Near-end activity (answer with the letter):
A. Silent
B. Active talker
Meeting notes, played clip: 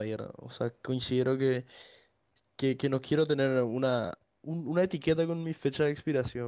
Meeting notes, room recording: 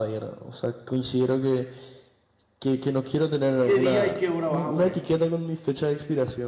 B